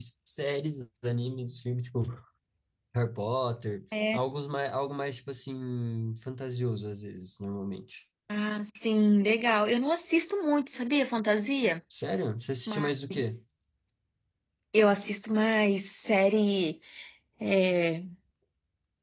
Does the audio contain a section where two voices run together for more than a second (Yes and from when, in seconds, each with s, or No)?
No